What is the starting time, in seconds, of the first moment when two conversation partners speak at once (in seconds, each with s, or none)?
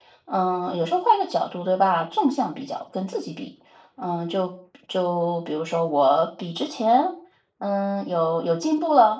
none